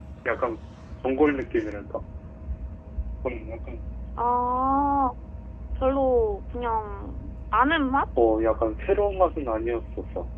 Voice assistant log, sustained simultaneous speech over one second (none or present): none